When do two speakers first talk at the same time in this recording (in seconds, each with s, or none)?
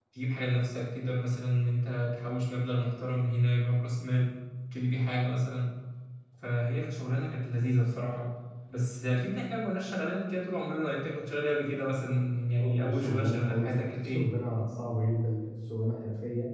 12.6 s